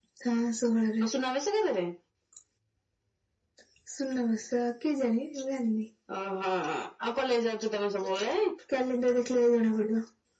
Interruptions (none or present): none